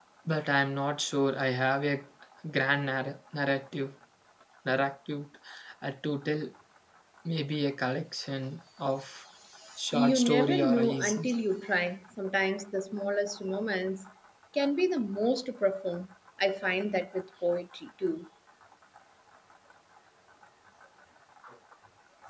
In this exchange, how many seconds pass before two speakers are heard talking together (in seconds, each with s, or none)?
9.9 s